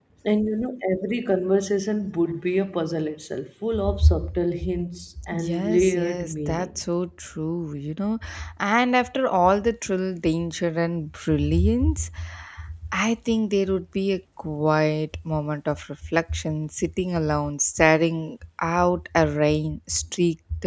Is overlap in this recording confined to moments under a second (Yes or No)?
No